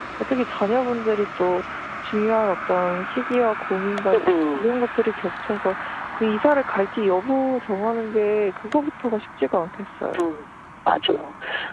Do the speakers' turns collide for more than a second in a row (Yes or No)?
No